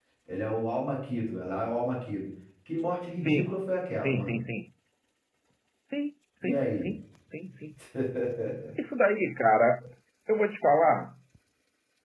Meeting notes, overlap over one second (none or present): none